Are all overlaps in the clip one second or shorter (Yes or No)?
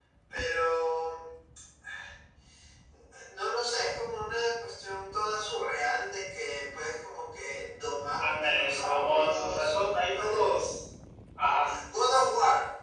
No